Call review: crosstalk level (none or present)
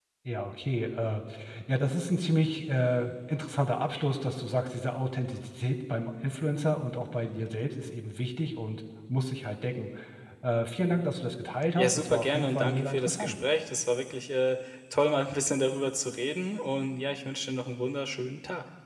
present